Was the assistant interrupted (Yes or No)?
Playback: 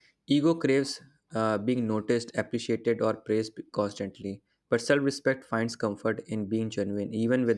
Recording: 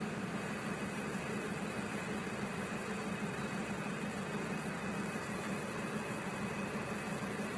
No